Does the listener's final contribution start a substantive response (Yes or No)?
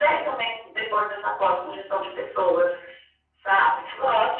Yes